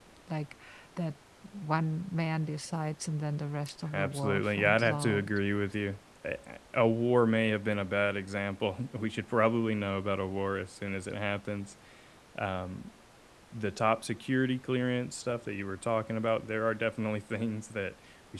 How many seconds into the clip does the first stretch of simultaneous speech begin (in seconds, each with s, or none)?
3.9 s